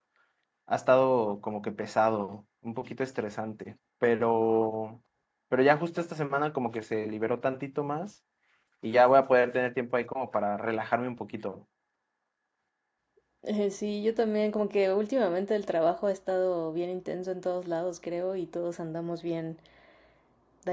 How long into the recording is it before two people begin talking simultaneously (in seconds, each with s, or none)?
none